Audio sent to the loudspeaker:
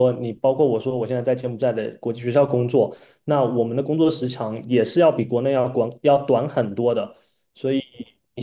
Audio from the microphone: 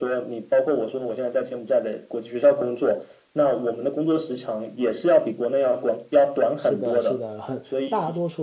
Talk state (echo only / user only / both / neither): both